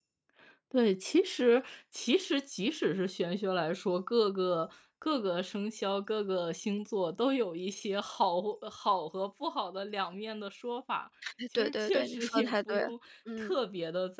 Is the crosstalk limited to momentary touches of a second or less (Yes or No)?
No